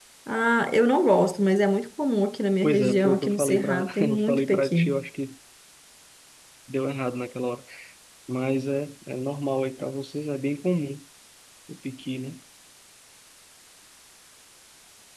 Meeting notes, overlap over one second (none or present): present